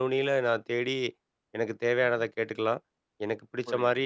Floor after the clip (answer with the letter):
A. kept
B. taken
A